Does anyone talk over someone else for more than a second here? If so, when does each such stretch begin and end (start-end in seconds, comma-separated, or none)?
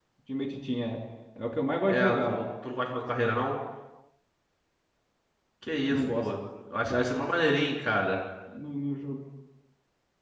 none